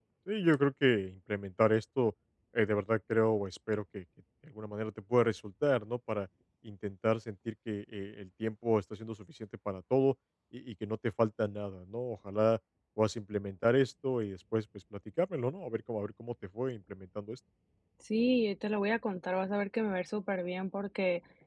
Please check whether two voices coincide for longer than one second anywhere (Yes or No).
No